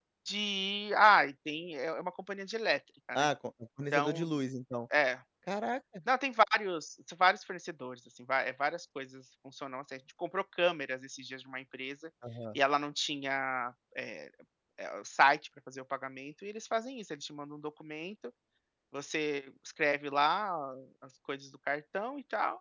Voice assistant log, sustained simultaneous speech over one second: none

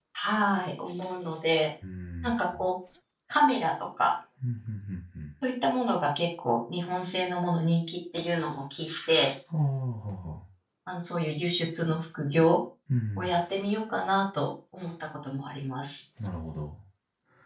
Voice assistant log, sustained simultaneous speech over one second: none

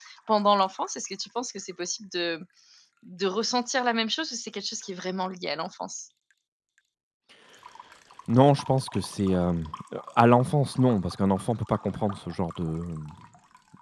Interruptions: none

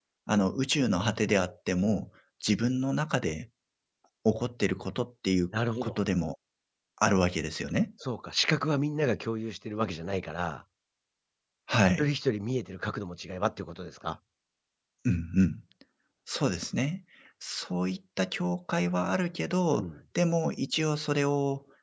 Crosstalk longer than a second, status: none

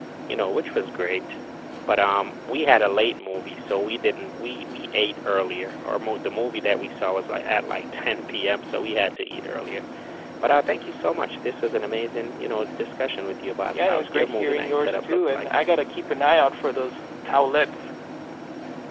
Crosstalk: present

